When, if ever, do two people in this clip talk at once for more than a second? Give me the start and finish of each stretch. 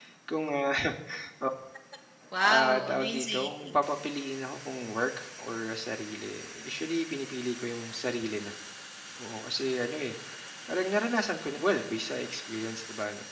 2.4-3.9

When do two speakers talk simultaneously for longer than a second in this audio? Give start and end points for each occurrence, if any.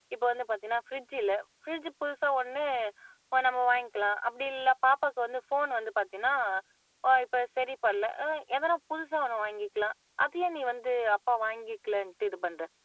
none

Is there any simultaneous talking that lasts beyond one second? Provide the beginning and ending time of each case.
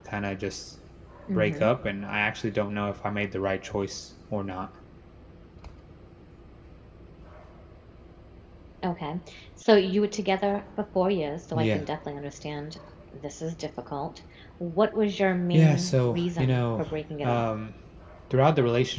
15.5-16.8

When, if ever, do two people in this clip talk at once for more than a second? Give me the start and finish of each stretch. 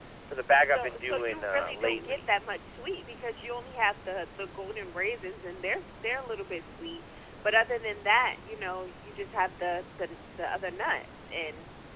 0.7-2.2

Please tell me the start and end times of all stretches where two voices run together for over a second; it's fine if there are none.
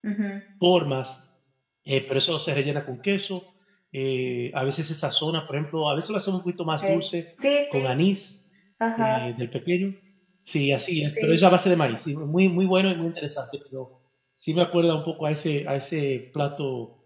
none

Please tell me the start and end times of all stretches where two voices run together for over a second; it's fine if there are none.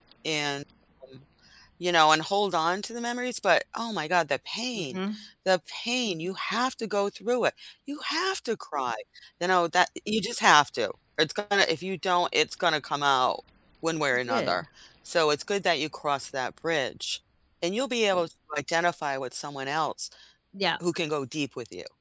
none

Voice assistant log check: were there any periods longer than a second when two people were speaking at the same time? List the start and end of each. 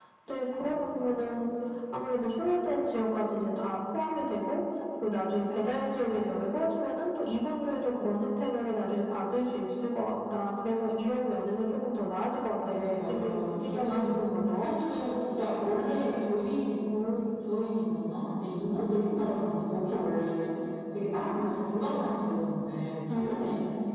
12.7-14.2

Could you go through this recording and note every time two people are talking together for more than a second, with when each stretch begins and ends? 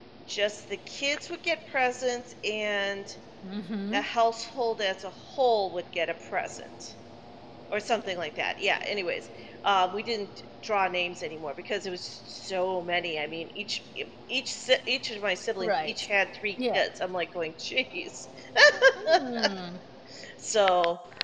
none

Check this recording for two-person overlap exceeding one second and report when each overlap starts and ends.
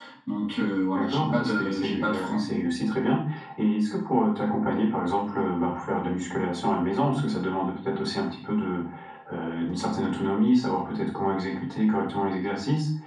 0.9-2.4

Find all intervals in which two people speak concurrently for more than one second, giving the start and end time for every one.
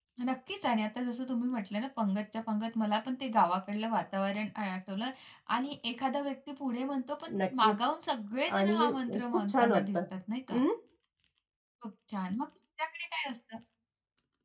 8.6-10.0

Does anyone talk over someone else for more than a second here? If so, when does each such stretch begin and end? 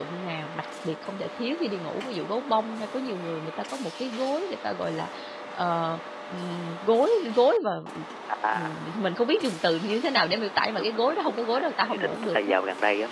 10.8-12.6

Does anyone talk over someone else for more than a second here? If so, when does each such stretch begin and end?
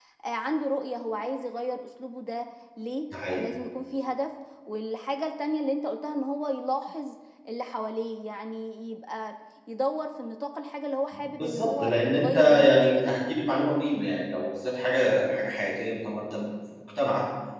11.1-13.1

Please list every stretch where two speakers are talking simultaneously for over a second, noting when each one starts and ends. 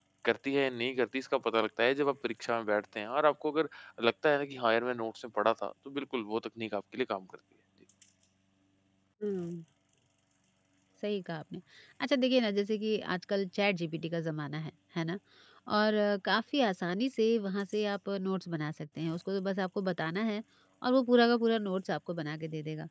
none

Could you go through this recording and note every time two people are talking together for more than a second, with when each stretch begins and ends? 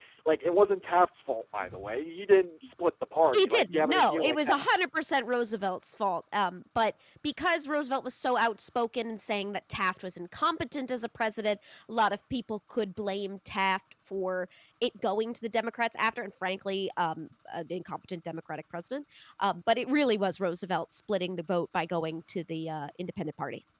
3.3-4.6

